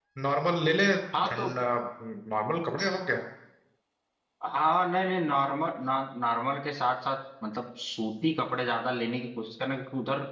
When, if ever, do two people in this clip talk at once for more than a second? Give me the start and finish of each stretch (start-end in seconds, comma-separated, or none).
none